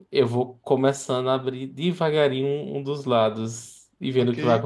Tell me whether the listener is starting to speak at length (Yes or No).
Yes